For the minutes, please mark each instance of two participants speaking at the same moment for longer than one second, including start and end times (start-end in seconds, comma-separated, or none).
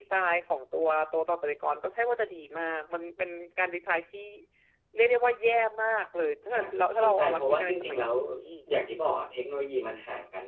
6.5-8.1